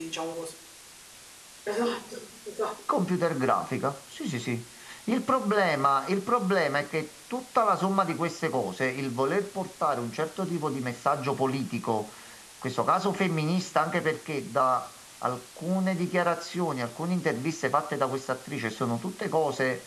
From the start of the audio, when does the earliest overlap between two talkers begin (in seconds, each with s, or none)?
none